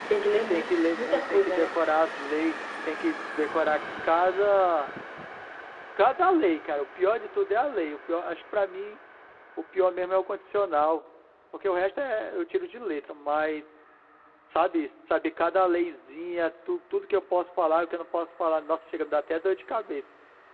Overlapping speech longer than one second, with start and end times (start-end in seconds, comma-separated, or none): 0.5-1.8